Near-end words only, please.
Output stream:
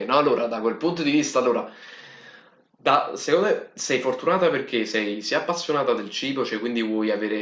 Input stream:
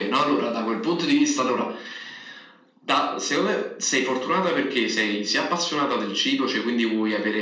none

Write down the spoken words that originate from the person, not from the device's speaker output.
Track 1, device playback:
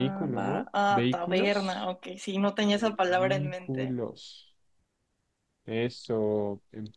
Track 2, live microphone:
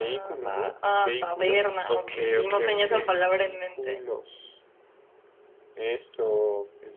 Ok, ok, ok.

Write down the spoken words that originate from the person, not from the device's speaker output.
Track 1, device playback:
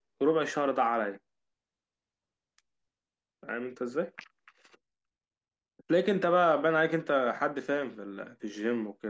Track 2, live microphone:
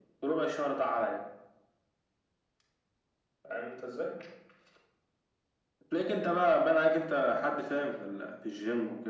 none

